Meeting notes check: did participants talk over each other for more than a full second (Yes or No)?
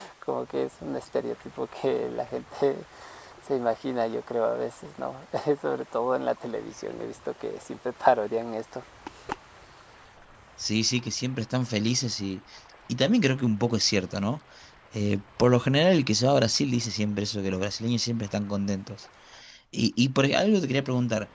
No